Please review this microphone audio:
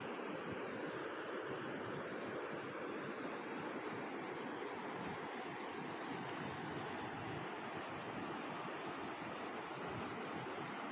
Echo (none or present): none